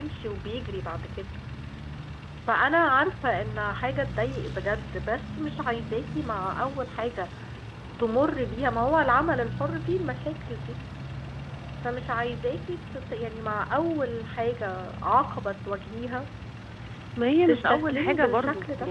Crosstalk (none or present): present